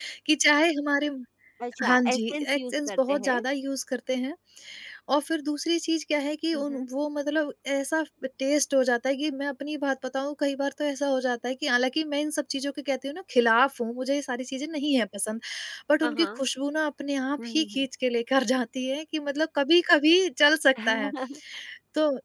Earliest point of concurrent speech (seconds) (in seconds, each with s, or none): 1.9 s